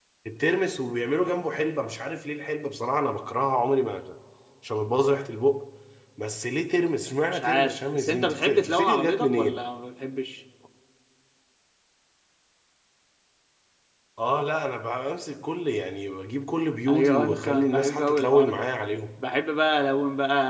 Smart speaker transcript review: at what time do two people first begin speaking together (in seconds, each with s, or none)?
7.3 s